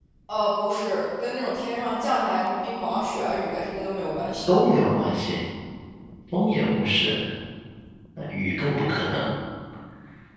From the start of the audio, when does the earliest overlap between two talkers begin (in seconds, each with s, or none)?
none